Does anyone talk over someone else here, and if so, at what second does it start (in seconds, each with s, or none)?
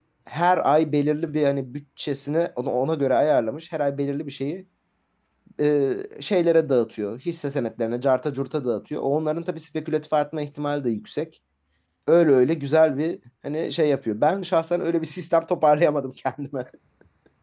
none